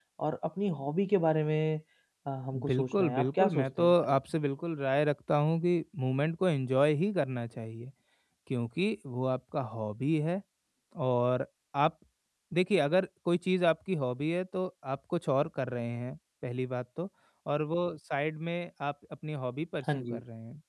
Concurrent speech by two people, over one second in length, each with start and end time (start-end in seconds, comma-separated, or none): 2.6-4.2